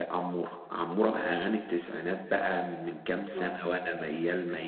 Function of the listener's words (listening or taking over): listening